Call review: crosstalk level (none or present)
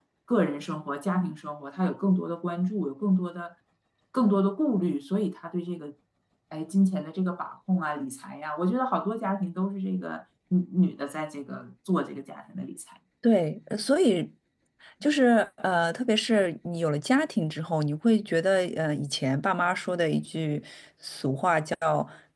none